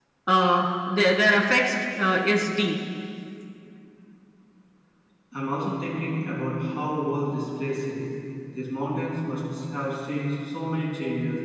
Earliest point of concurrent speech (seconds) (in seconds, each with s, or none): none